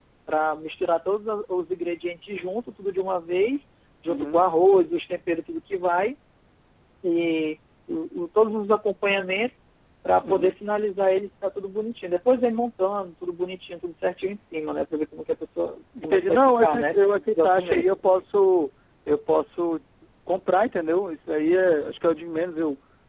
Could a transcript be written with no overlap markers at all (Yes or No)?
No